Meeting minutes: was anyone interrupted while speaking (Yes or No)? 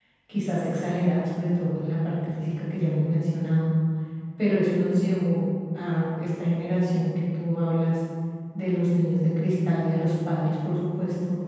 No